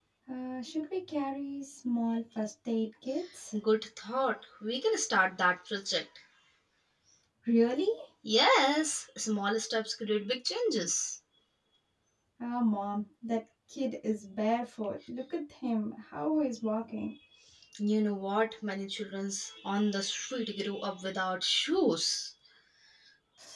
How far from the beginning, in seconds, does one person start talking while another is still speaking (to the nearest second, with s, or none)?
none